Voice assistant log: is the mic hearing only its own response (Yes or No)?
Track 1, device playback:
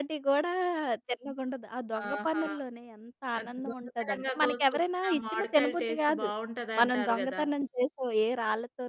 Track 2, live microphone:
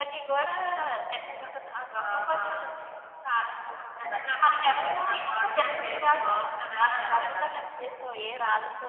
No